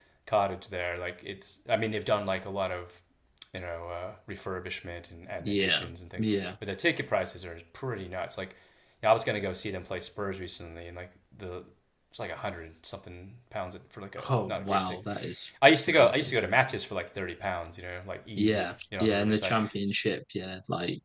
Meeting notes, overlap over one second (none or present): present